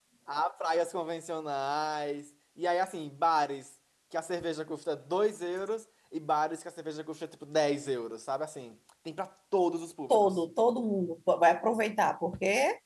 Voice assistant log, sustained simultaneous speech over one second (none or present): none